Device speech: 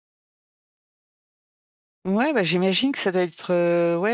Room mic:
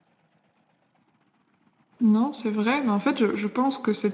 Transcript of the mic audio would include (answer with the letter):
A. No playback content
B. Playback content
A